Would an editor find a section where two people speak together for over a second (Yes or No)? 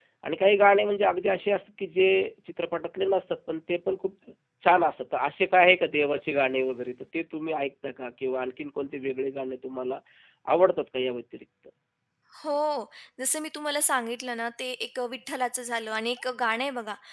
No